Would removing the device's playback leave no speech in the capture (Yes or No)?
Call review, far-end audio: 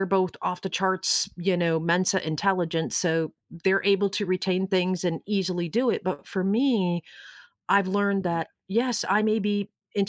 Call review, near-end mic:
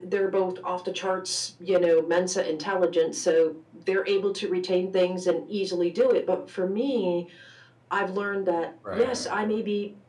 No